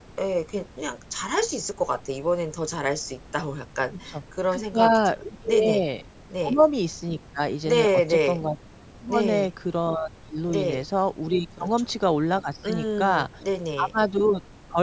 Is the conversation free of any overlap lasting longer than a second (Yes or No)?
No